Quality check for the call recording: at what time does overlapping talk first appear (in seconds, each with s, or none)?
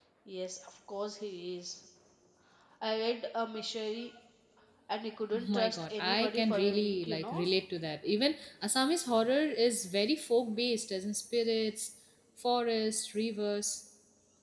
5.3 s